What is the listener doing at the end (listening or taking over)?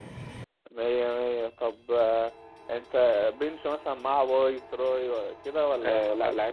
taking over